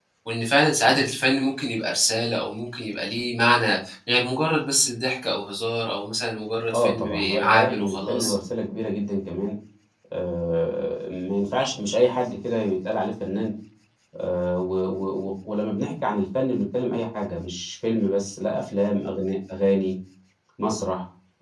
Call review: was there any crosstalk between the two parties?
Yes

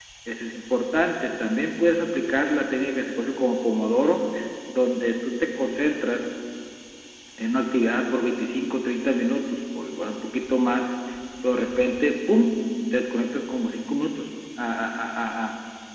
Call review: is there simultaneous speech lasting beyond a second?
No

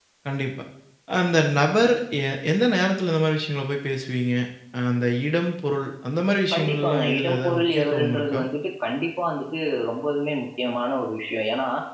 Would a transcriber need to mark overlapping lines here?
Yes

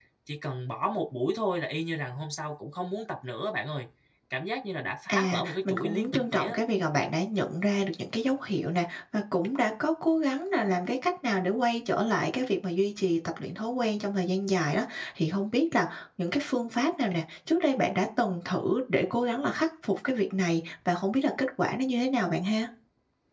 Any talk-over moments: Yes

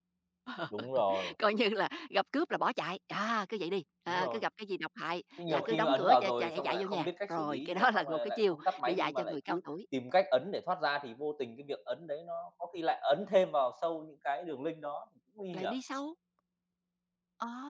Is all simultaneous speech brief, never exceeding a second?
No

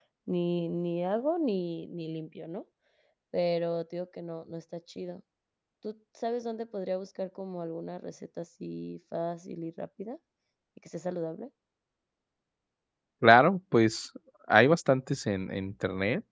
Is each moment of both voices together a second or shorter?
Yes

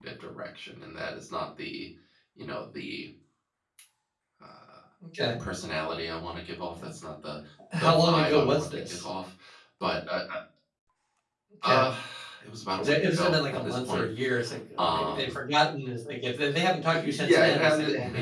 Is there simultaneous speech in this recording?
Yes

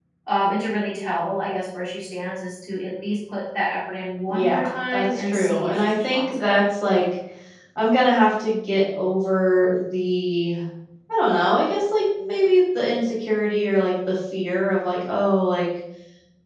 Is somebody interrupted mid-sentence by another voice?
Yes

